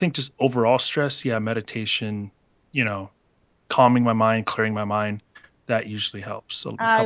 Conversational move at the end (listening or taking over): taking over